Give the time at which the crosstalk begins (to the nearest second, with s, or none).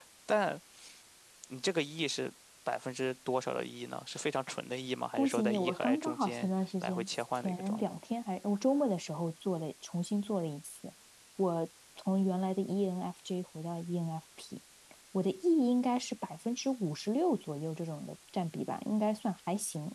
5 s